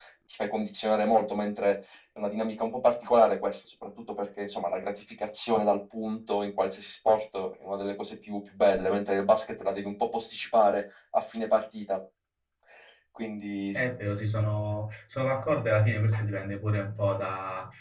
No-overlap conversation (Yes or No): Yes